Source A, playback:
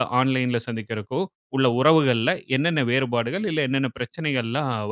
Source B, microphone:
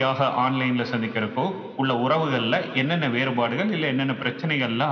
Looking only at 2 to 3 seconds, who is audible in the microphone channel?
echo only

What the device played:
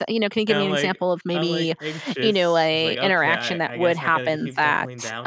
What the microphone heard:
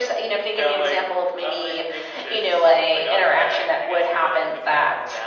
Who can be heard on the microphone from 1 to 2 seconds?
echo only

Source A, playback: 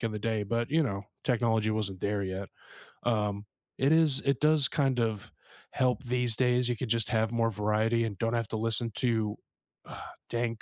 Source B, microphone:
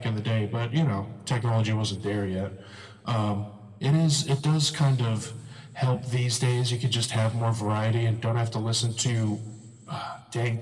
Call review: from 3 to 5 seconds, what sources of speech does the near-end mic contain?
echo only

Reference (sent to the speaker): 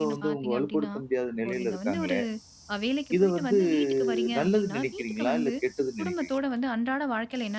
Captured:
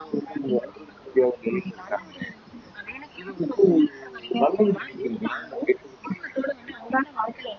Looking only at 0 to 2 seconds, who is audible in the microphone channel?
echo only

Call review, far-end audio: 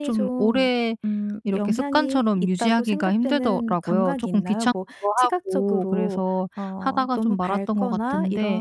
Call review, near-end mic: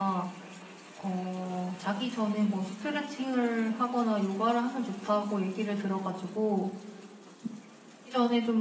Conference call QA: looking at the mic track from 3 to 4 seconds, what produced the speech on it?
user only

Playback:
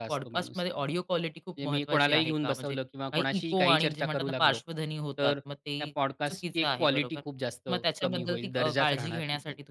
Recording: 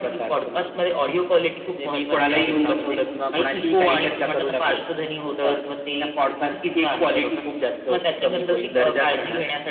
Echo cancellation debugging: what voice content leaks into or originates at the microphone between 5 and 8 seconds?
echo only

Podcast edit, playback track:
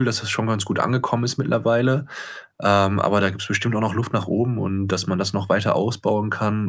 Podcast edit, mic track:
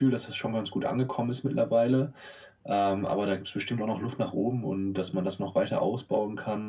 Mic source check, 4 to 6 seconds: echo only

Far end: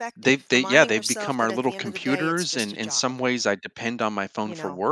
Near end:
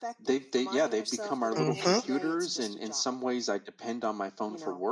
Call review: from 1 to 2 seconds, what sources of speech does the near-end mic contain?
both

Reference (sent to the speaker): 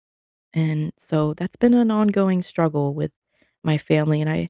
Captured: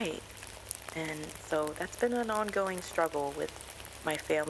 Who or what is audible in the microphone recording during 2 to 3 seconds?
echo only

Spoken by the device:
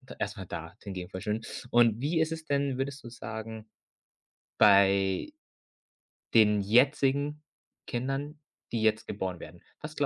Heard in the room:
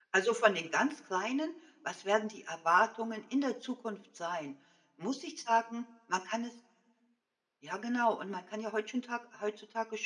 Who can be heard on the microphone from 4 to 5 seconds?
user only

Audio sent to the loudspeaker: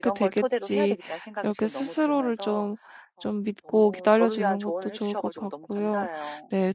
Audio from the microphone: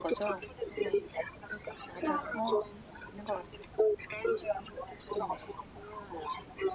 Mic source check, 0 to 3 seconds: both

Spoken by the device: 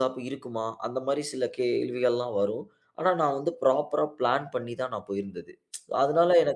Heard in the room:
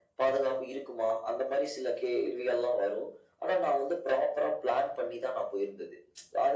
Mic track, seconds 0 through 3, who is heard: echo only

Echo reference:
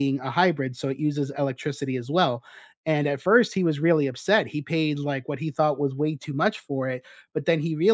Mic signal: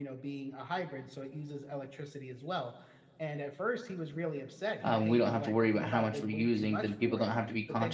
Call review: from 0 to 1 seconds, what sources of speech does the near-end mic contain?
echo only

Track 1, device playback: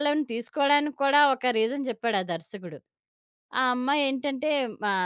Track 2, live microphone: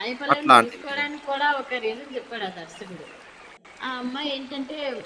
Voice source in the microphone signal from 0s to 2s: both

